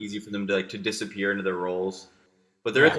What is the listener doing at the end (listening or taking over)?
taking over